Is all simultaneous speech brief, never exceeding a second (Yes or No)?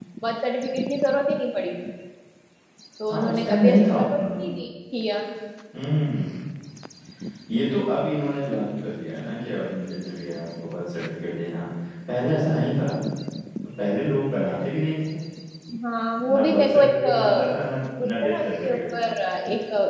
No